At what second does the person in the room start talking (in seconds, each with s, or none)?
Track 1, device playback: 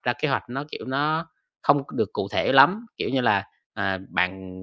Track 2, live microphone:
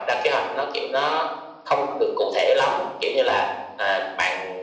none